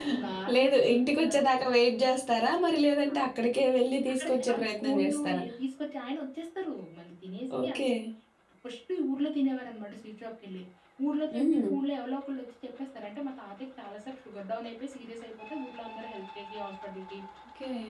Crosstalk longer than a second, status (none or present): present